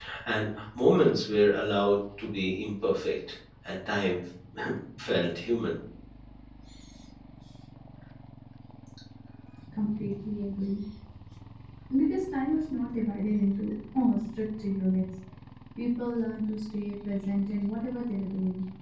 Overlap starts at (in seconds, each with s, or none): none